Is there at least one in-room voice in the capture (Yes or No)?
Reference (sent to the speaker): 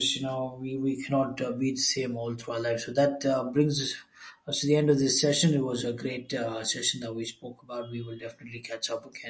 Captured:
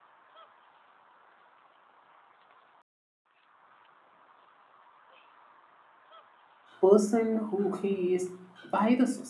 Yes